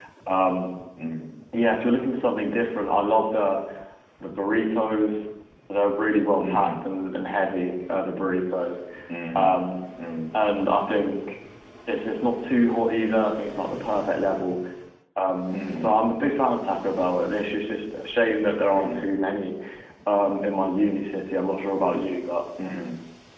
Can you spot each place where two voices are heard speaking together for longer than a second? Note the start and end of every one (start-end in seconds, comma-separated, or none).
none